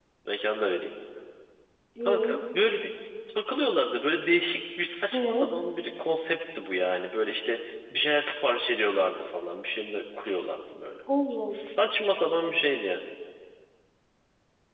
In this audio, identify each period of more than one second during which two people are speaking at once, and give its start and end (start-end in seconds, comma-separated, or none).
none